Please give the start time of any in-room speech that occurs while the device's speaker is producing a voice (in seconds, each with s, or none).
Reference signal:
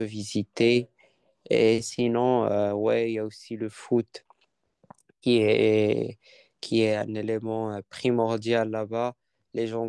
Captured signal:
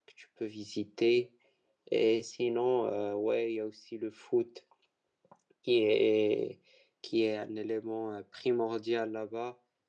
none